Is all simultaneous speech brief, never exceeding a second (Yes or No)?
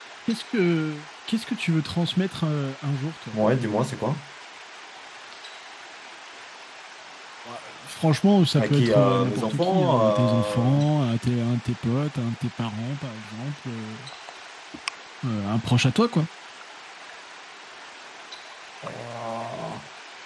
No